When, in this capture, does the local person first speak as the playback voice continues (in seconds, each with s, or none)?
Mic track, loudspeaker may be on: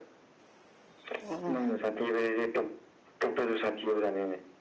1.2 s